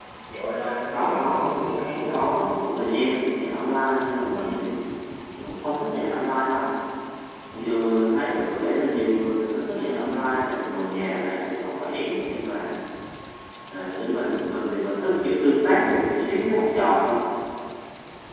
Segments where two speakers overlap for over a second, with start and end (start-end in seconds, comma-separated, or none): 0.9-2.4